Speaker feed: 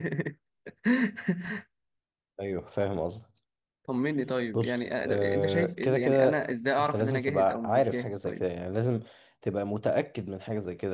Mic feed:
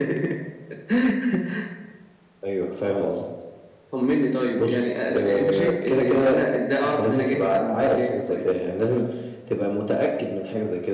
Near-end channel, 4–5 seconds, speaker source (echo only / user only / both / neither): echo only